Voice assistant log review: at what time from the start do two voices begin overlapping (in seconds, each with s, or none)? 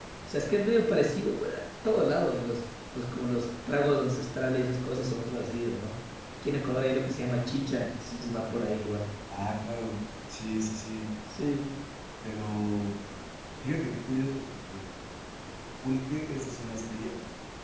none